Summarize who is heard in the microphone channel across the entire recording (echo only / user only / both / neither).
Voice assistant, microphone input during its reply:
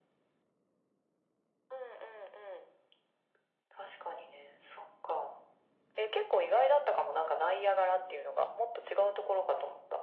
echo only